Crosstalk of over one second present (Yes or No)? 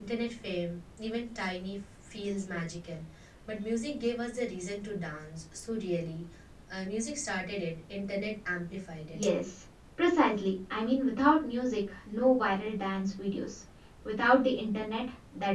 No